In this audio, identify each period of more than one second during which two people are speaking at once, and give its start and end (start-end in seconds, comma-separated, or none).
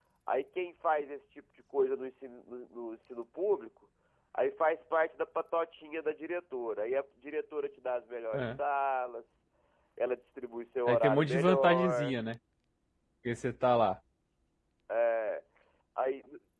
10.9-12.2